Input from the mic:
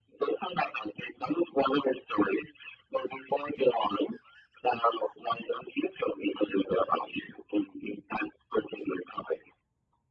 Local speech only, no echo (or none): none